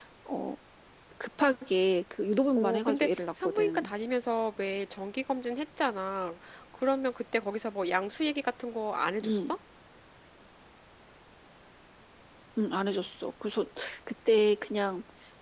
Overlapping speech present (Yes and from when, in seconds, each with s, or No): Yes, from 2.5 s